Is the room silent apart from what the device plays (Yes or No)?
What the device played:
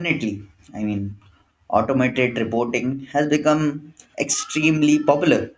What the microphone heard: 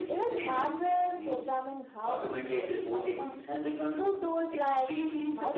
No